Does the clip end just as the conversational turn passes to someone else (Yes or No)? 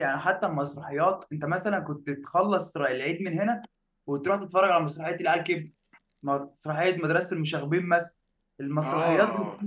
No